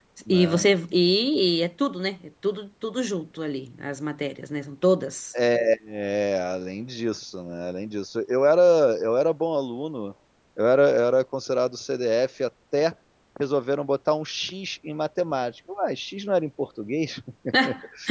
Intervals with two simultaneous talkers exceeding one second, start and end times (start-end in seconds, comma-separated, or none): none